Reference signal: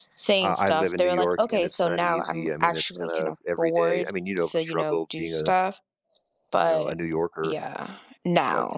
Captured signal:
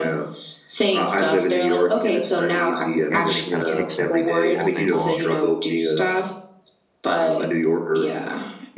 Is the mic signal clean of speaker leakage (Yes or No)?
No